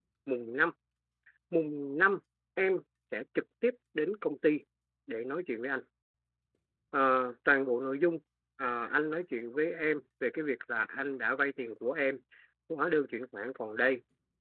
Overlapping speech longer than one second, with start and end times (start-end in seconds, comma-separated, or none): none